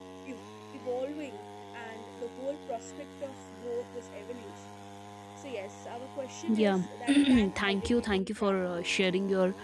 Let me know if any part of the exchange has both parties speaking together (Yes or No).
Yes